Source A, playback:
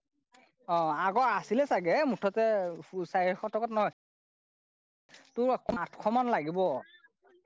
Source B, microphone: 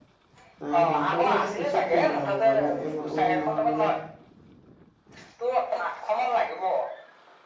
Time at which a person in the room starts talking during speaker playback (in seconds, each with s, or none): 0.7 s